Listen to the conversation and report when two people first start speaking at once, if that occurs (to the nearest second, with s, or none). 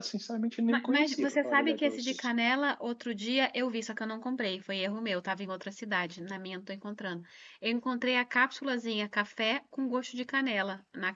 1 s